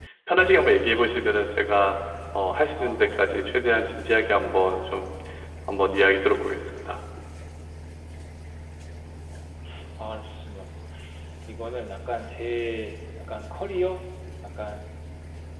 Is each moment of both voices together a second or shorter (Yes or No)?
Yes